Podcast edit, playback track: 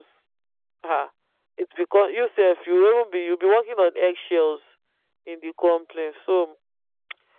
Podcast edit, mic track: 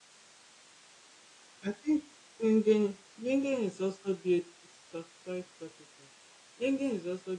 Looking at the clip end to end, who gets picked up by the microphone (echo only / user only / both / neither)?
user only